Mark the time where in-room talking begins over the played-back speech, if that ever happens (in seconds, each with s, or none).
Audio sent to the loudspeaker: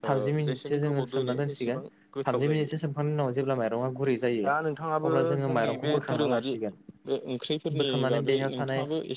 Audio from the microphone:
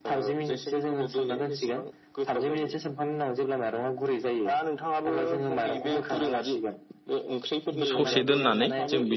7.9 s